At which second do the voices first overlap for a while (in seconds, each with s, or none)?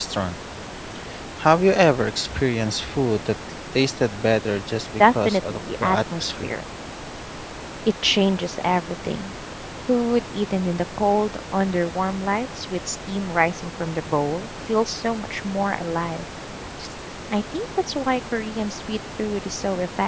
5.0 s